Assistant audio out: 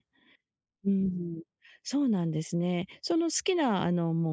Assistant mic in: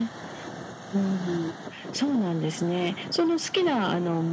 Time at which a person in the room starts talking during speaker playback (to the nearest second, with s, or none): none